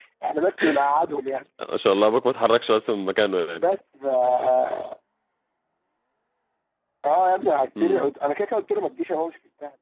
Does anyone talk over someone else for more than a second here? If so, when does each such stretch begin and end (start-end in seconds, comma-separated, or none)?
none